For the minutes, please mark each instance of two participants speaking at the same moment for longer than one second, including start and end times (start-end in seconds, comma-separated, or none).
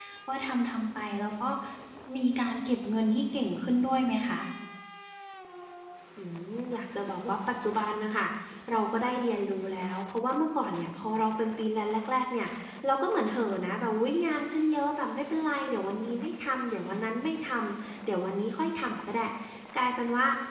none